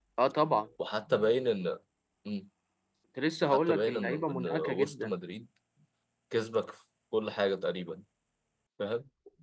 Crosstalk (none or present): present